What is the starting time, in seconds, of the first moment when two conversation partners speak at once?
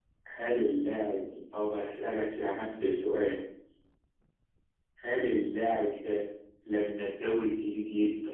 none

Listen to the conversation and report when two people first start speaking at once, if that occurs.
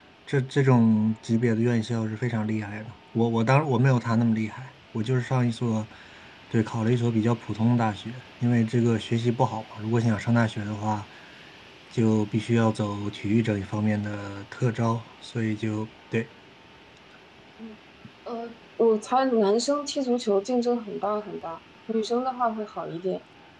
none

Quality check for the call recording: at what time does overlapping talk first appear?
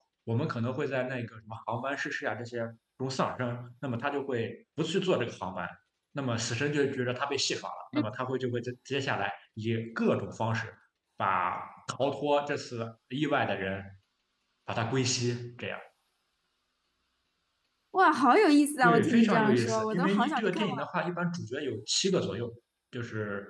19 s

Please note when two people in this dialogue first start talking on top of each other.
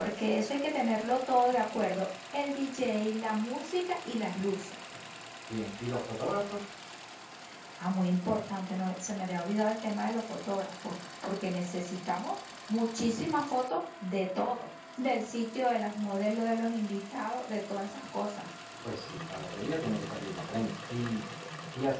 none

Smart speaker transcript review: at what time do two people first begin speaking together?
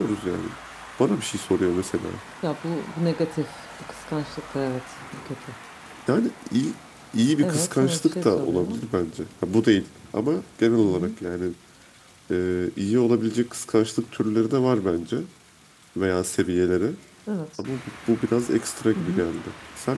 7 s

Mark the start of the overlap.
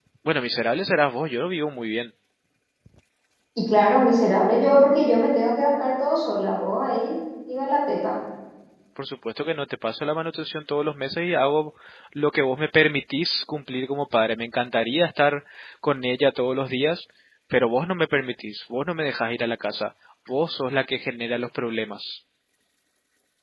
none

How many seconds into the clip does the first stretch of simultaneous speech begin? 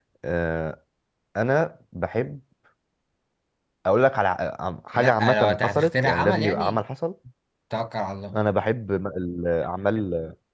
5 s

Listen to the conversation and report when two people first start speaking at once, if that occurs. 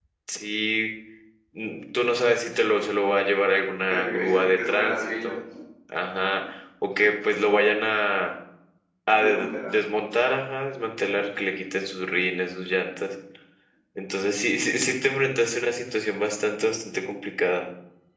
4 s

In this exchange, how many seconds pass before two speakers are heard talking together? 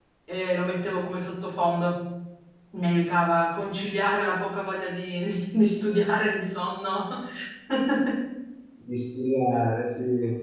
none

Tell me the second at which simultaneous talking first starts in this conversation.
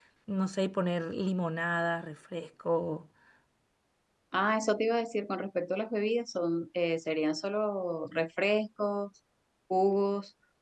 none

